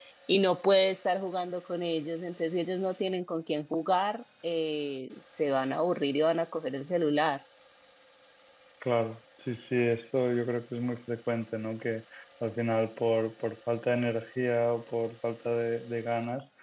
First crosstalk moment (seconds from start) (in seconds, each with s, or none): none